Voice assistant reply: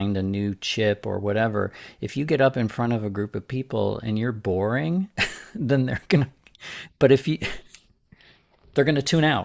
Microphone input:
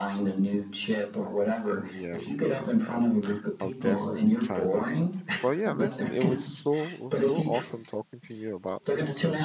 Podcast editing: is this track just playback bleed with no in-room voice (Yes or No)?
No